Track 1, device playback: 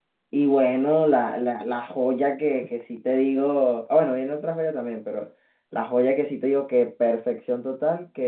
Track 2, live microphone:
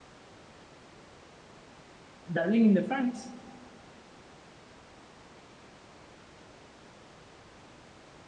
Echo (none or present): none